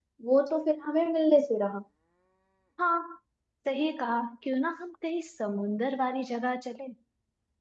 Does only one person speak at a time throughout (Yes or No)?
Yes